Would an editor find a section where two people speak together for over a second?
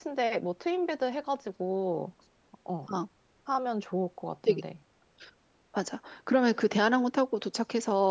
No

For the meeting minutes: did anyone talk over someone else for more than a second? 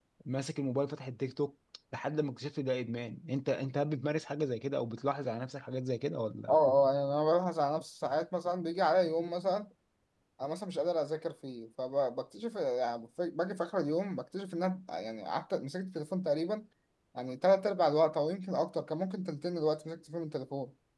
No

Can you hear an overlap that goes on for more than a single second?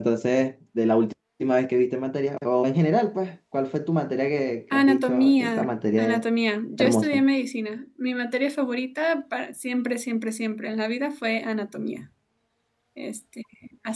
Yes, from 4.7 s

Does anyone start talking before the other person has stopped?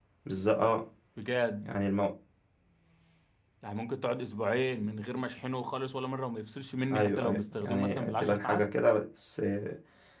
Yes, from 6.9 s

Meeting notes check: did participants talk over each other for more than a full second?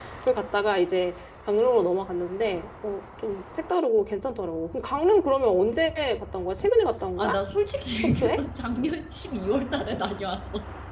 No

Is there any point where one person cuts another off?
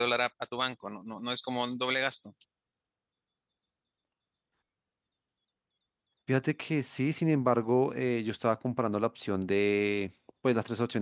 No

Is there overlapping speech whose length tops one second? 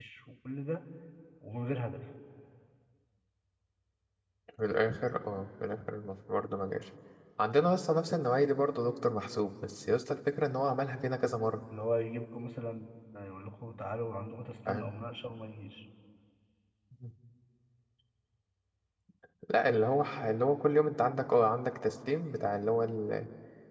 No

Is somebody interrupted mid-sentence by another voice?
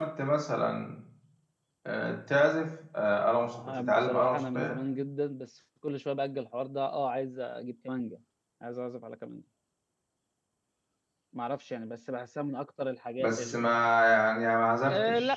Yes, from 3.5 s

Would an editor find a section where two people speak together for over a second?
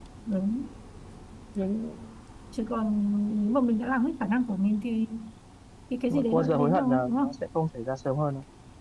Yes, from 6.1 s

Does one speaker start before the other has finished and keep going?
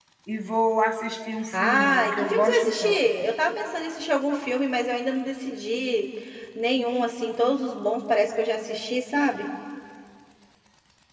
Yes, from 1.5 s

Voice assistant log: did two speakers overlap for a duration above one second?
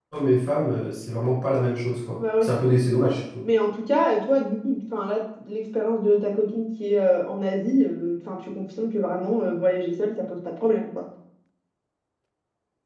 No

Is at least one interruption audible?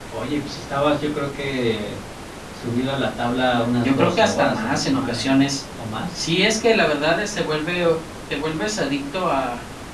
Yes, from 3.5 s

